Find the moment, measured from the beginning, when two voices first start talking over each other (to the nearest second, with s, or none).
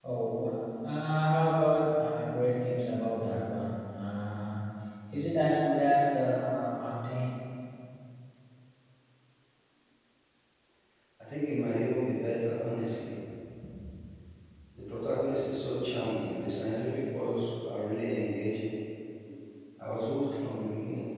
none